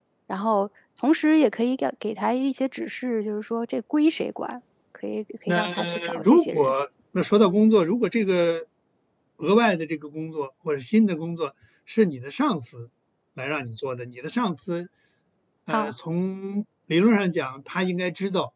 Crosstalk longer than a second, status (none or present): present